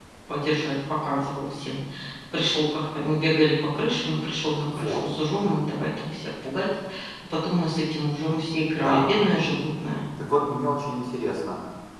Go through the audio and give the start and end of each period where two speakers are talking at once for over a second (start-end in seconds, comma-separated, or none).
none